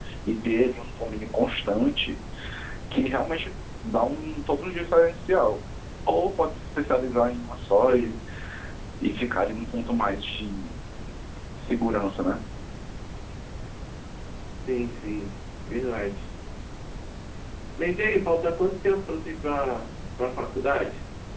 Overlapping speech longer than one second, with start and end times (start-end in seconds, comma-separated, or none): none